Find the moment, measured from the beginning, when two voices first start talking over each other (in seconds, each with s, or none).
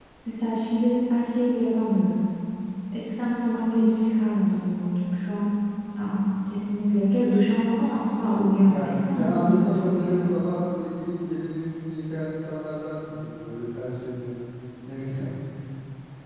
8.6 s